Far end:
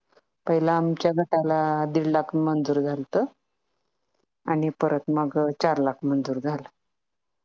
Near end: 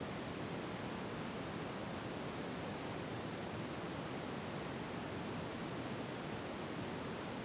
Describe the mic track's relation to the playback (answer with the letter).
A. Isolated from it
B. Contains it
A